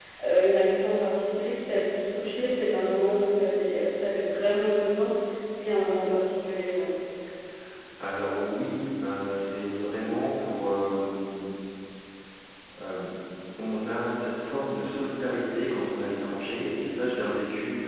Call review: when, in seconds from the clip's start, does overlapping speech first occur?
none

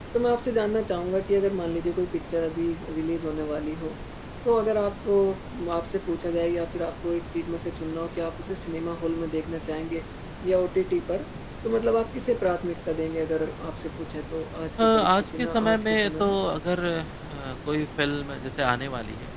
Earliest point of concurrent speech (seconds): 14.8 s

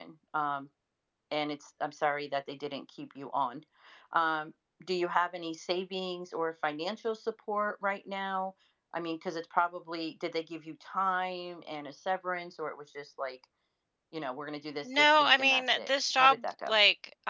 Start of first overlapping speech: 14.8 s

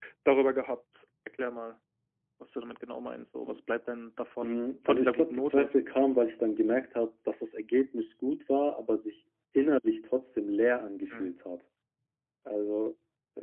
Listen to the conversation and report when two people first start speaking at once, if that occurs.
4.4 s

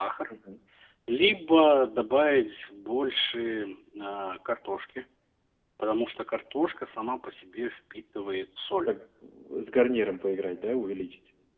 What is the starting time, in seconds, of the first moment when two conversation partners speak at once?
none

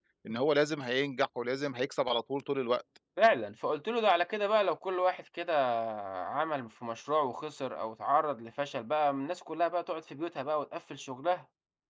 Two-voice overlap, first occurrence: none

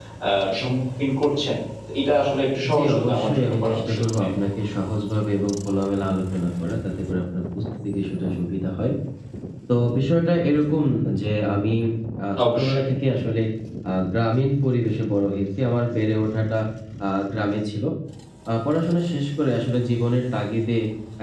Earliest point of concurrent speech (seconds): 2.7 s

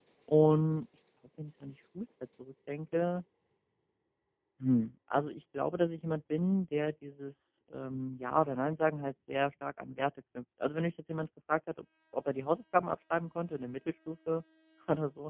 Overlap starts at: none

